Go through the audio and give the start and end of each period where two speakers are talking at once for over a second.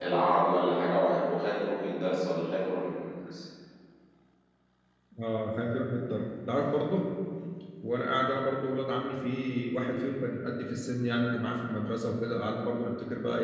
none

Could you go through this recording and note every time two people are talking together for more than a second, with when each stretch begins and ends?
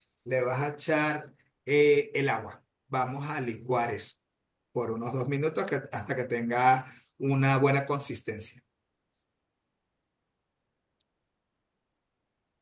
none

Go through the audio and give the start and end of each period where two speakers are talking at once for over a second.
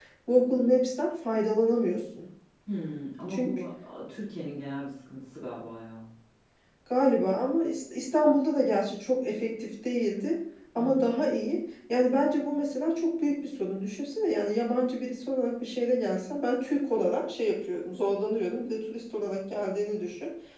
none

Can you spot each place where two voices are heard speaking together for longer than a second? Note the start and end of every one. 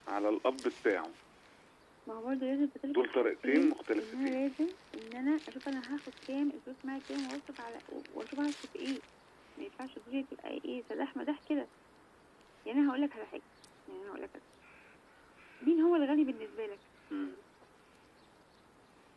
2.9-4.4

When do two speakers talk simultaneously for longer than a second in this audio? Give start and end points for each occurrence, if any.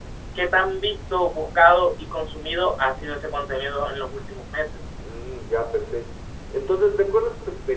none

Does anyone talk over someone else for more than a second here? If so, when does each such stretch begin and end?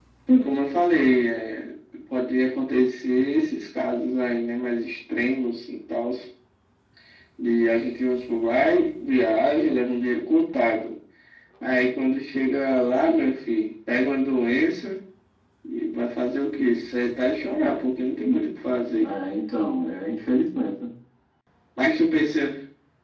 none

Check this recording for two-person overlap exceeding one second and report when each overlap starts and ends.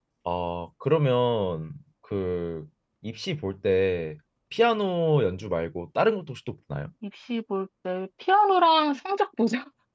none

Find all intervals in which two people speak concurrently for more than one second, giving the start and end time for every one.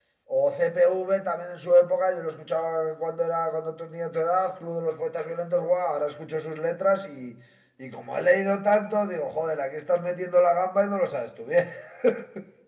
none

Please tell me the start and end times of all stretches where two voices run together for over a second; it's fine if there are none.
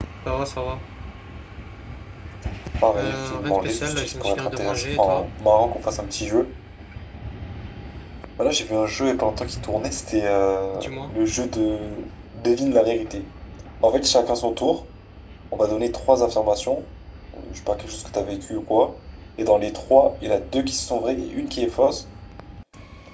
3.0-5.2

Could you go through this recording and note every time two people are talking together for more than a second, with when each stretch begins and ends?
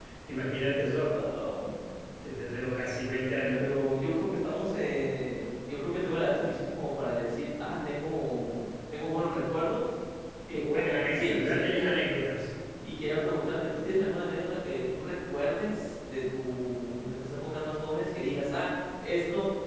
10.5-11.7

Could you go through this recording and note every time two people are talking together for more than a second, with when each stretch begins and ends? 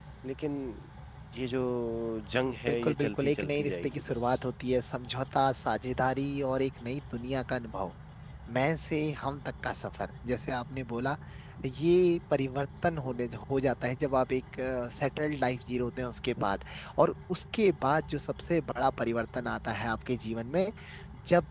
2.7-4.4

